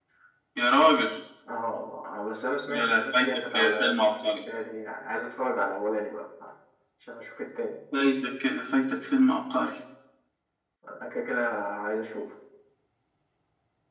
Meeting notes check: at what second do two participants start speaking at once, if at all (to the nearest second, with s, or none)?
3 s